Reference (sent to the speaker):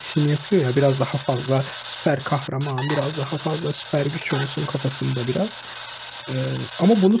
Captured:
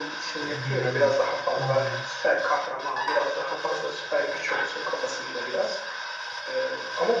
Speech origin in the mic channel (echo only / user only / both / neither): both